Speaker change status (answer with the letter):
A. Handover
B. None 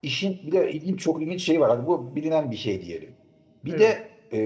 B